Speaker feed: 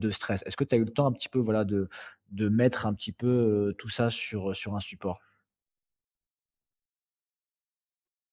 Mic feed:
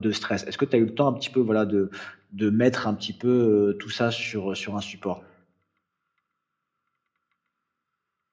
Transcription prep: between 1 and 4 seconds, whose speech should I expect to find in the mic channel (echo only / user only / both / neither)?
echo only